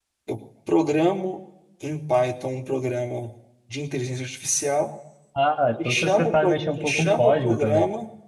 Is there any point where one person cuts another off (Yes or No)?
Yes